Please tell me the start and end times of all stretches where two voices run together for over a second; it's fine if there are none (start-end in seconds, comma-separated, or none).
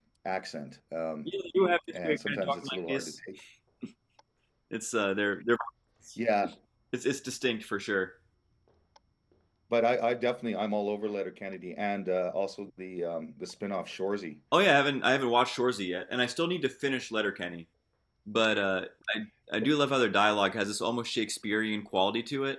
1.9-3.1